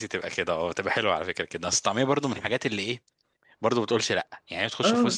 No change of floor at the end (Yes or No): Yes